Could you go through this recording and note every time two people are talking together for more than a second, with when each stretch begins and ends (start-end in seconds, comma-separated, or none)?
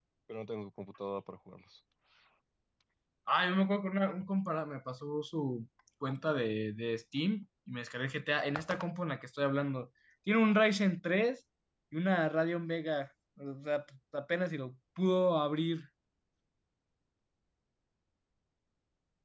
none